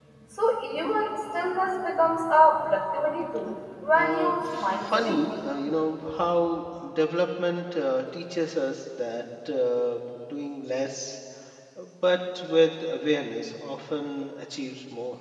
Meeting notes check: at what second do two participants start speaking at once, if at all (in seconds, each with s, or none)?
4.0 s